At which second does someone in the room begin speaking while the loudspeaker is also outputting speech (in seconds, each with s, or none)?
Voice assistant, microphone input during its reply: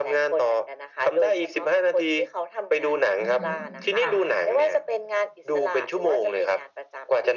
3.2 s